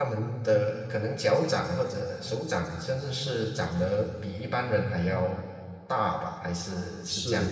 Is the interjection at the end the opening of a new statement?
Yes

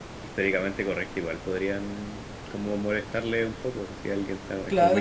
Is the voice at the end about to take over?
Yes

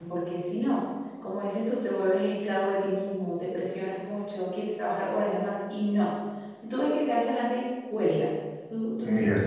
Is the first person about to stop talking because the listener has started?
No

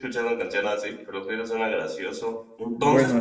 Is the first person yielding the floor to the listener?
No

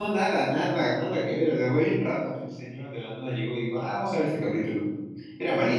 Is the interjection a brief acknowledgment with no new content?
No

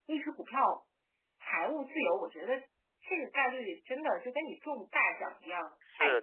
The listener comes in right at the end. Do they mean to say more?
Yes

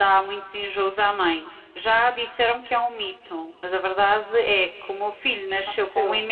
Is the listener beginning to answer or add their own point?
No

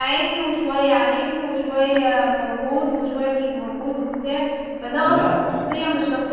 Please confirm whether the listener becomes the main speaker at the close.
No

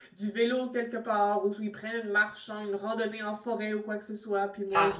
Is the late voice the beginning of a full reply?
Yes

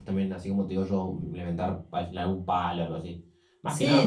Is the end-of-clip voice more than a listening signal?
Yes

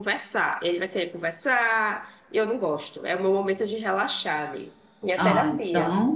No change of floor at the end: No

